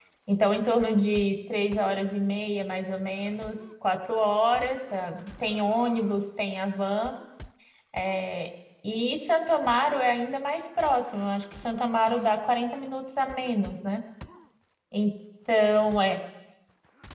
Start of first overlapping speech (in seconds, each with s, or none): none